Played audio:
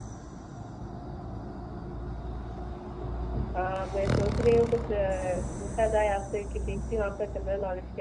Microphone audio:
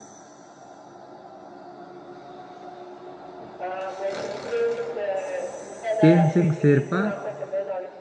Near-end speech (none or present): present